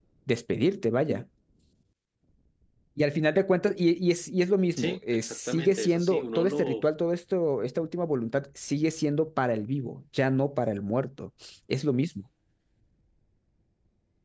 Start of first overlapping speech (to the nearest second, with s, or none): 5 s